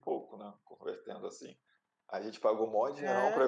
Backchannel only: Yes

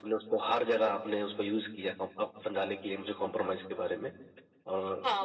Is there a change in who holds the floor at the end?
Yes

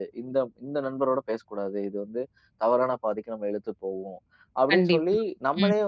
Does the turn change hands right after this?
No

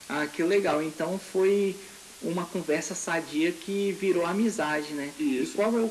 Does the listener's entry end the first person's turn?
No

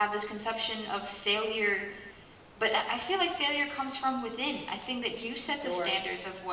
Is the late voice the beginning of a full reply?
No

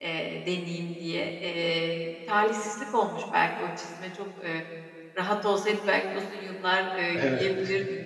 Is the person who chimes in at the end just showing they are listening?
Yes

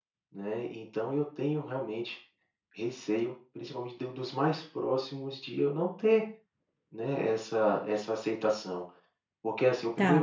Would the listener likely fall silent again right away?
No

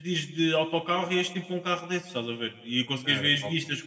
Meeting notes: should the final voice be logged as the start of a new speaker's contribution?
No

